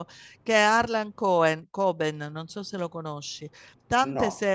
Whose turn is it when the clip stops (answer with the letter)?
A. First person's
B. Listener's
A